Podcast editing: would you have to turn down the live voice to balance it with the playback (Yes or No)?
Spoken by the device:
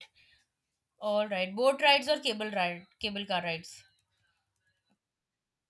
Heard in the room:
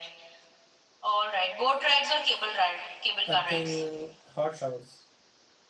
No